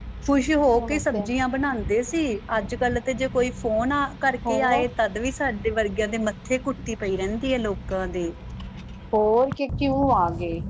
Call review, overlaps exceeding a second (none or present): none